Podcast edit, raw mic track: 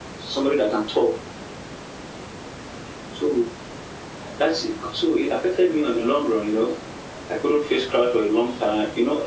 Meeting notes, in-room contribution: none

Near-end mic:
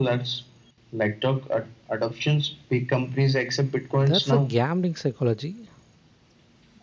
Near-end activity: present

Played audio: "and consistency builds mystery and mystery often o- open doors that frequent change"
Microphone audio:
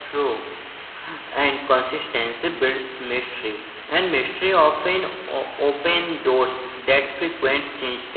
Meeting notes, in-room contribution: none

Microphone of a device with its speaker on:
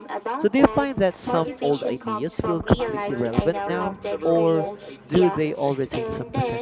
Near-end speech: present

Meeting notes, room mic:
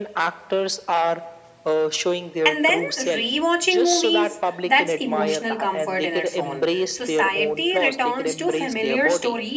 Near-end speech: present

